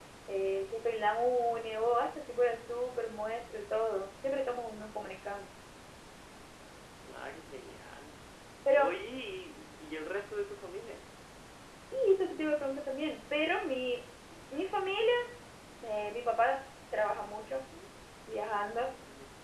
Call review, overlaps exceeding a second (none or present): none